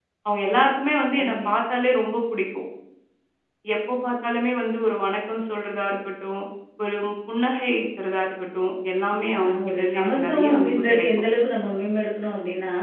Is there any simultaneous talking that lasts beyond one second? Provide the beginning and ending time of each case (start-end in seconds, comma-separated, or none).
9.3-11.1